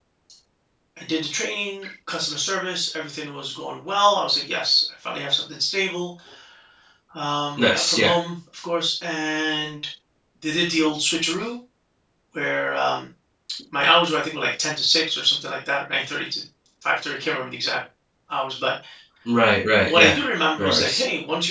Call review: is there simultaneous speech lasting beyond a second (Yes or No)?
No